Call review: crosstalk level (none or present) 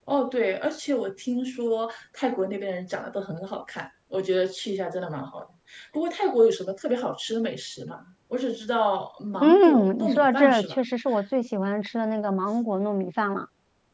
present